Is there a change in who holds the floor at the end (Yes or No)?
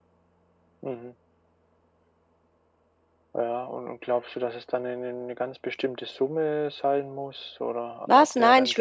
Yes